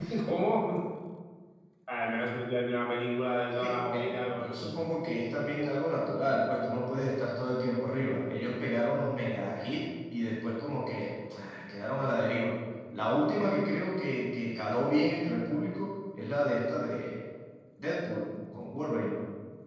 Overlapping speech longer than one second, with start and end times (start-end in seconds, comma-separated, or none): 3.5-4.7